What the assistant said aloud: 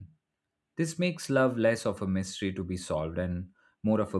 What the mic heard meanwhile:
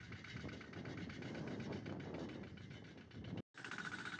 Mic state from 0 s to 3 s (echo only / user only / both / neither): neither